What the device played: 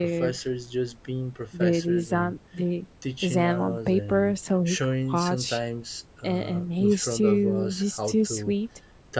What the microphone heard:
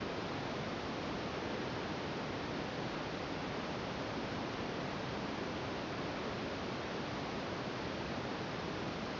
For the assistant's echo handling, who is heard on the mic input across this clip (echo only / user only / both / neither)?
neither